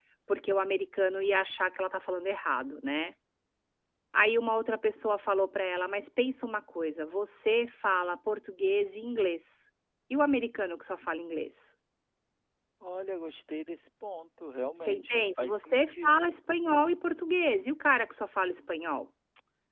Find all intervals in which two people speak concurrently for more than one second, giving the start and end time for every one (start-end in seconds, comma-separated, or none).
14.8-16.1